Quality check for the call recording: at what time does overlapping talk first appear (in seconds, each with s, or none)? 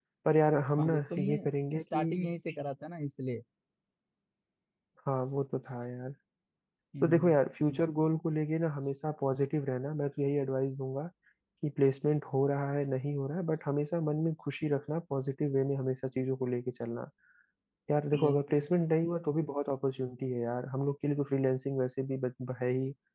0.8 s